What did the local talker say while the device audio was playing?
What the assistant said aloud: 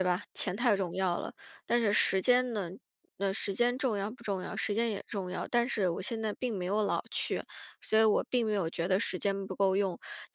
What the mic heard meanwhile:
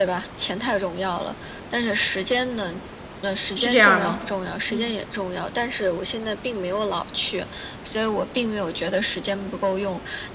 是这样儿吗？嗯。

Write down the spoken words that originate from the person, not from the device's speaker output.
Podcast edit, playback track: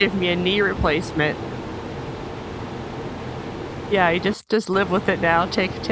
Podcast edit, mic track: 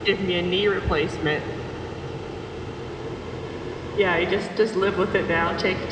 none

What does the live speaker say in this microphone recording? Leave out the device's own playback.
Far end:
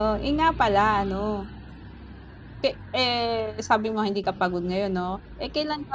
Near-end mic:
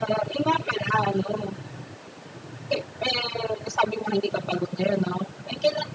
none

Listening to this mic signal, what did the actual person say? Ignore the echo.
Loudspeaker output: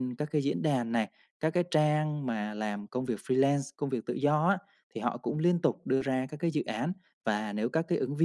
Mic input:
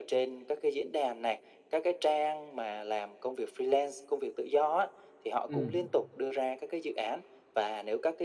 Ừm.

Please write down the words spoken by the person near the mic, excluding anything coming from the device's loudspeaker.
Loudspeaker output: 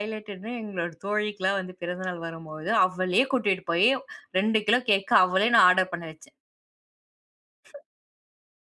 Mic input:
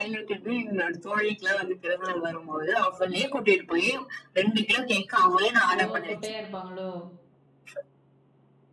ஓ! குட்டையா இருப்பாங்களோ?

